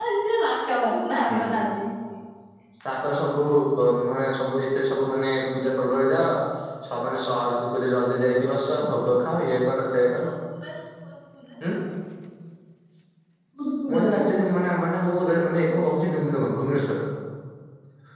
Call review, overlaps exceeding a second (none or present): none